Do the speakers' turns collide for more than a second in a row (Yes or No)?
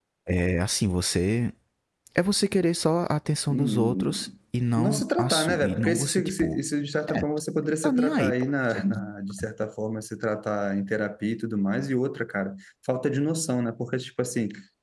Yes